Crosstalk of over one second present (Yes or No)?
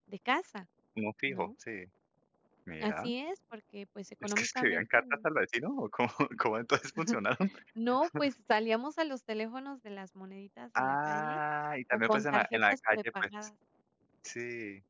Yes